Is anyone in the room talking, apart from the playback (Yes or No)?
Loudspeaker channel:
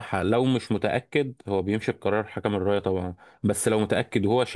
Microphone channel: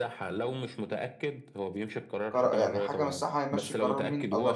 Yes